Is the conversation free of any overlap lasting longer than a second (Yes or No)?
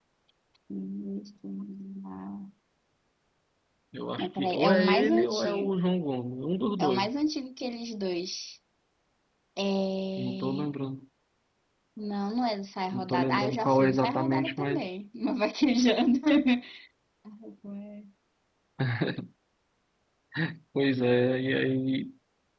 No